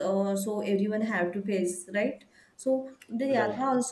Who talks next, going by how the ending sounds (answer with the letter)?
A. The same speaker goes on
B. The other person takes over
A